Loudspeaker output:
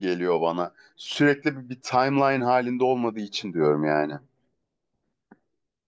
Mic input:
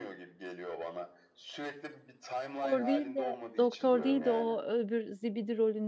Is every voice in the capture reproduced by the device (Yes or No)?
No